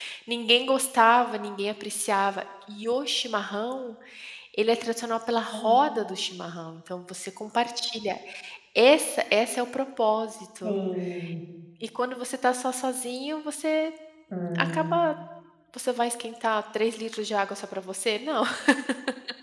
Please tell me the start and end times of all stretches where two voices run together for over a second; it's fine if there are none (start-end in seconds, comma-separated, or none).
none